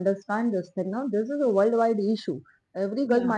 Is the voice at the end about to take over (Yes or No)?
No